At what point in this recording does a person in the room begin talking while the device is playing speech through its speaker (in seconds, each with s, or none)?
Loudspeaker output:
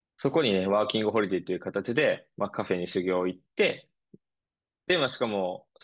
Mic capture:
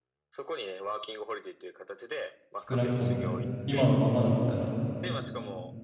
2.7 s